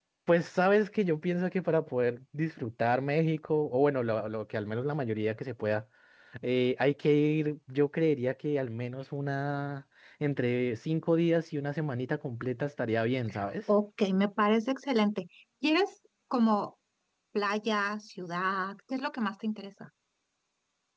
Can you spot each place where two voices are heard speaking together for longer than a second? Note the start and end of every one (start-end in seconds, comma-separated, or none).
none